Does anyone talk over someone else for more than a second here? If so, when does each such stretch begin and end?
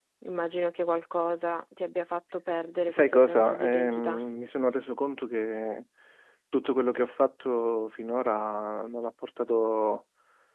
2.9-4.2

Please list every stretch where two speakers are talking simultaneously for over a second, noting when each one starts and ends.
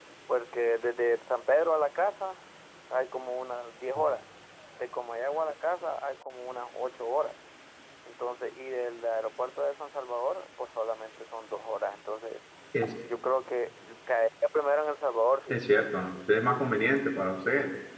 none

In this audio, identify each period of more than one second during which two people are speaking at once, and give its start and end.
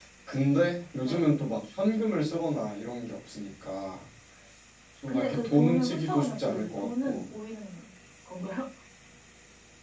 5.1-7.2

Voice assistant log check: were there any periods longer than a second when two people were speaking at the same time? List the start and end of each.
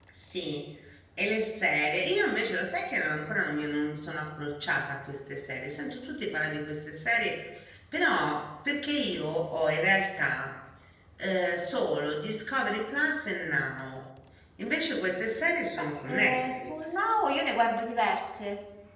15.7-17.0

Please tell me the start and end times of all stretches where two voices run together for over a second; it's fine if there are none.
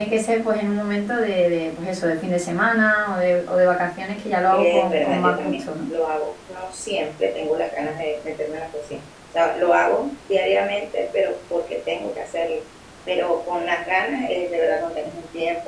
4.5-5.9

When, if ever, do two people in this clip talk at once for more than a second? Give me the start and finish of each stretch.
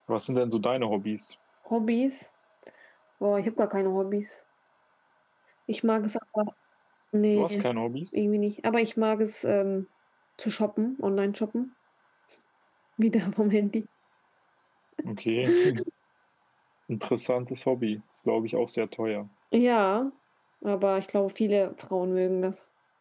none

